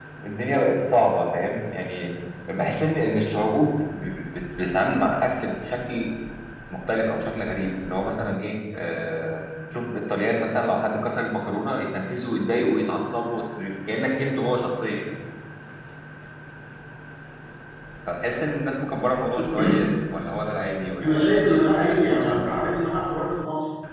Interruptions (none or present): present